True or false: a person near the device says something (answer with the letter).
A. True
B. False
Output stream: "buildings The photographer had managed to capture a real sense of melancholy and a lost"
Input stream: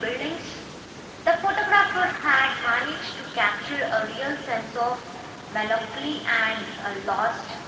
B